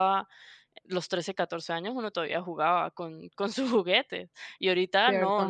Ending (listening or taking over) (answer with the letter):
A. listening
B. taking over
B